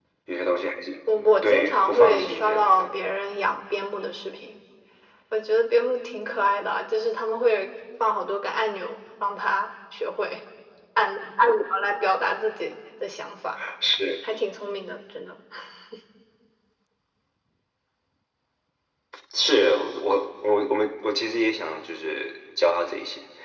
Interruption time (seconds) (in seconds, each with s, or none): 1.4 s